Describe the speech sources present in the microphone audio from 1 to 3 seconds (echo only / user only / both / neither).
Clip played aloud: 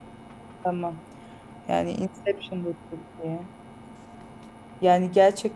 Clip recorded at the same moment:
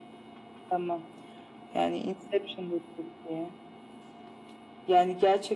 echo only